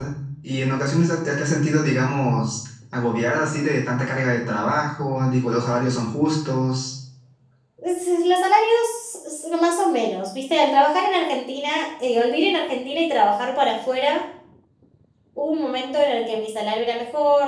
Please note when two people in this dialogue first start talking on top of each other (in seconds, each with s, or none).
none